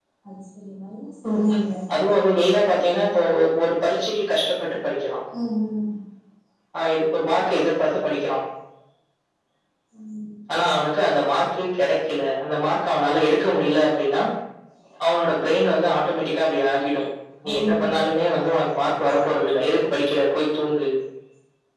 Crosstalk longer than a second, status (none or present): none